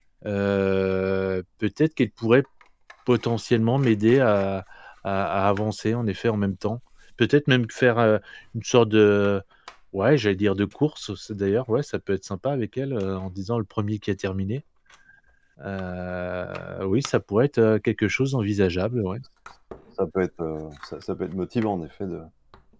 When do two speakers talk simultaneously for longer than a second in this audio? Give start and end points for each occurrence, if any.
none

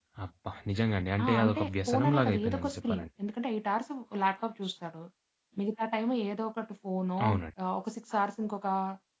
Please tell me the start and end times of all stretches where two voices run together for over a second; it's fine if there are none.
1.2-3.1

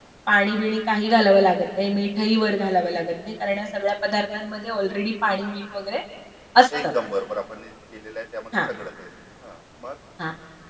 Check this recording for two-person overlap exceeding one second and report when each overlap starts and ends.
none

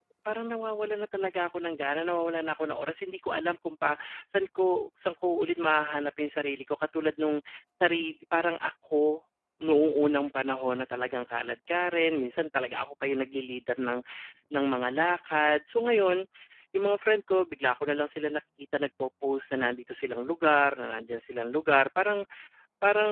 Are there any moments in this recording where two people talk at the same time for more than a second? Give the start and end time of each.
none

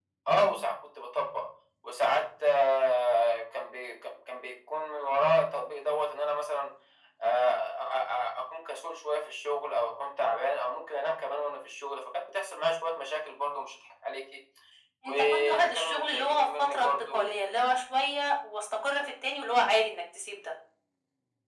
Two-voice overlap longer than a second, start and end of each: 15.0-17.3

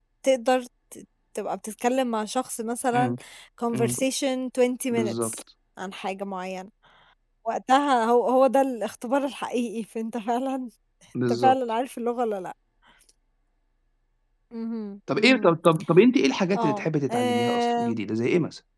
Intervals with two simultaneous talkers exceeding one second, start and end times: 16.6-17.9

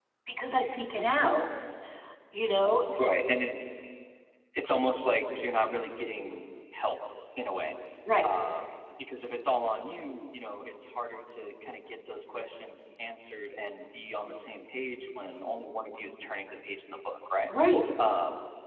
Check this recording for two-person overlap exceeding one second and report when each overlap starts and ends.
none

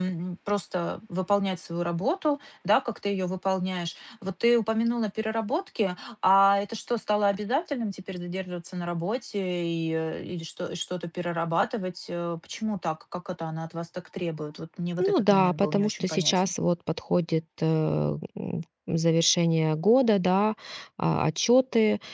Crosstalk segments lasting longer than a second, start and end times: 15.0-16.5

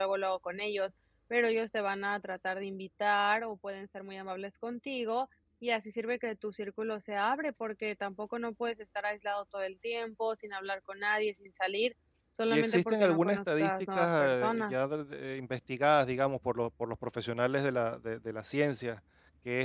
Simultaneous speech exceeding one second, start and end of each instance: 12.5-14.7

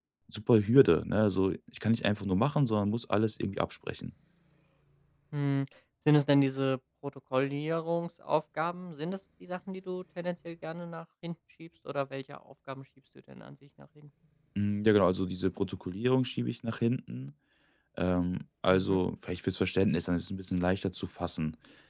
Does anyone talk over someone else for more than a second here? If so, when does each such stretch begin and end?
none

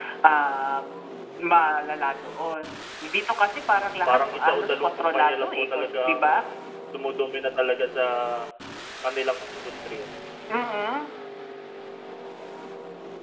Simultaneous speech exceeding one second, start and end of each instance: 4.1-6.2

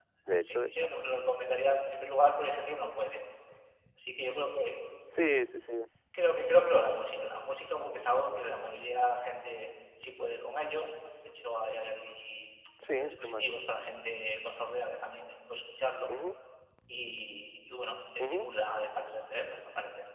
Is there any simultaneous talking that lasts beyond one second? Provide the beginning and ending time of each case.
none

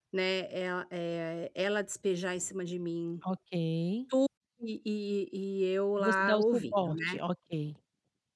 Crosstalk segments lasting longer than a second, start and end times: 6.0-7.2

